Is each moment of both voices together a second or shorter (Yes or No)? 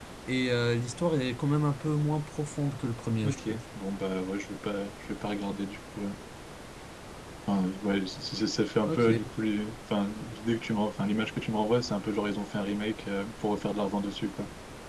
Yes